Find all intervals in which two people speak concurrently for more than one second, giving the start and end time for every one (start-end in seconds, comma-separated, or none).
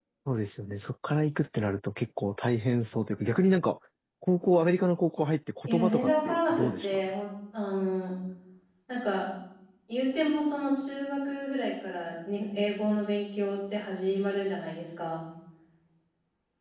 5.6-7.0